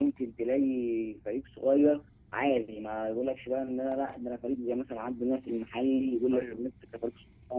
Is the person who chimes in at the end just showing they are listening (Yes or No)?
Yes